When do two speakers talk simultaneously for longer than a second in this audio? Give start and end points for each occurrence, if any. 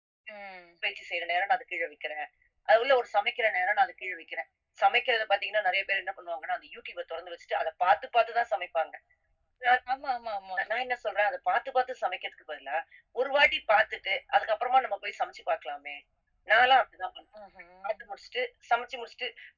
none

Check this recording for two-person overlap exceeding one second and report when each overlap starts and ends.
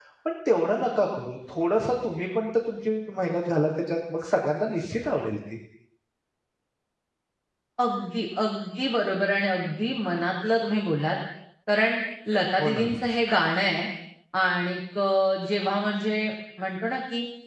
none

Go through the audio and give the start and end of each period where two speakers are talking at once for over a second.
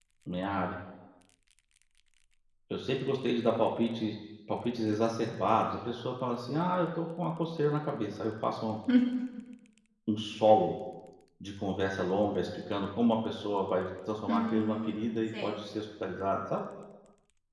14.3-15.5

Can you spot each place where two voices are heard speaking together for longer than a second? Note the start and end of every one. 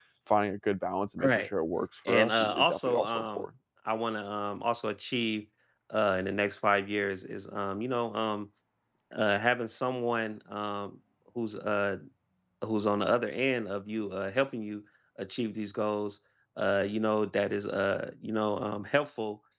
2.1-3.5

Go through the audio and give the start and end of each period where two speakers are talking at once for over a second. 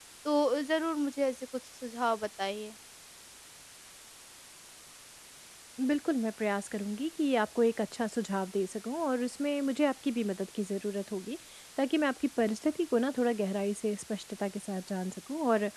none

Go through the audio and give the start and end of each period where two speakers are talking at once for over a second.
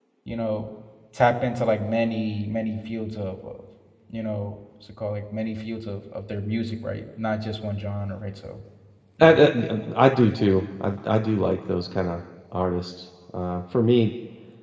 none

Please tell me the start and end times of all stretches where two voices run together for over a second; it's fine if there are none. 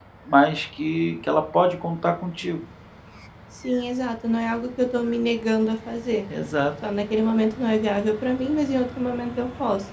none

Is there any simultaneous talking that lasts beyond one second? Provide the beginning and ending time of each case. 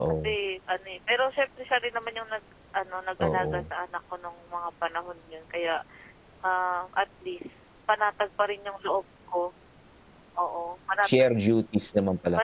none

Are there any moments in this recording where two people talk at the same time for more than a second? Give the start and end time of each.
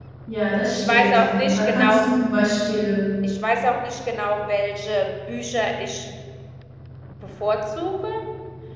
0.7-2.1

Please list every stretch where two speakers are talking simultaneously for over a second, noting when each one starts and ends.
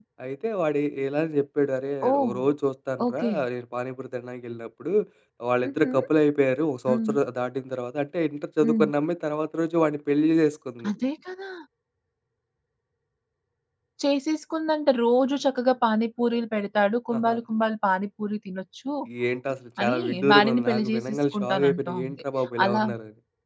19.8-22.2

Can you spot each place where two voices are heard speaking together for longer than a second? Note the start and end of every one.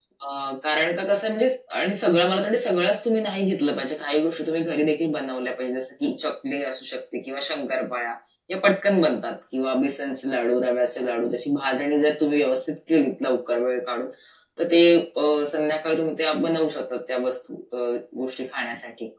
none

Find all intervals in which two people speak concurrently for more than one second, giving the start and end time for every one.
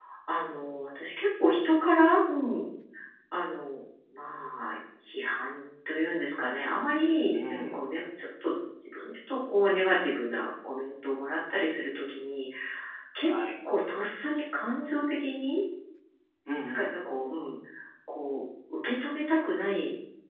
none

